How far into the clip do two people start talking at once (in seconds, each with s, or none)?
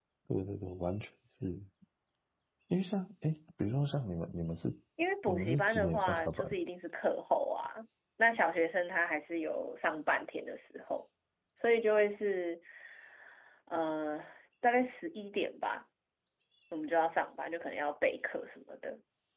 5.3 s